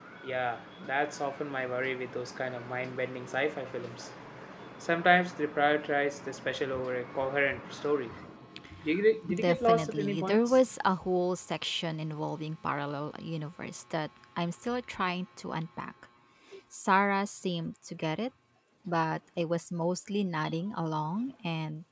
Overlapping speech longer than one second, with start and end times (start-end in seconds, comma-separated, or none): 9.3-10.6